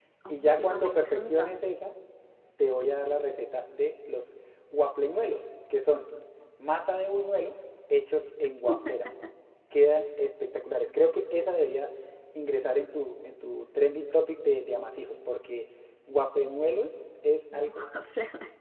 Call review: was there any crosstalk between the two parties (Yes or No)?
Yes